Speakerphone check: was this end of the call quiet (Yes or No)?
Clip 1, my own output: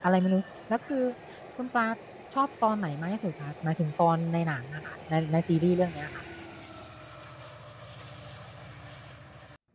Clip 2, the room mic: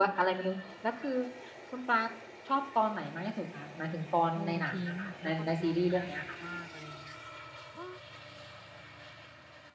No